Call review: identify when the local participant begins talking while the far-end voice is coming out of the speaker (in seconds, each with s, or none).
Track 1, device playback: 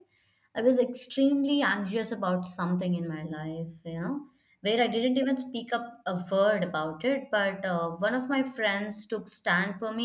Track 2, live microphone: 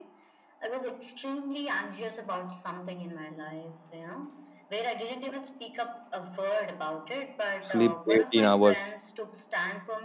7.6 s